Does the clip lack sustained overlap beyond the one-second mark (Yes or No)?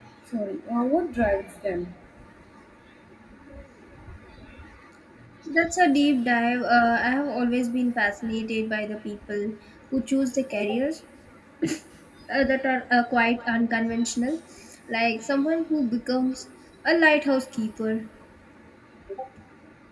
Yes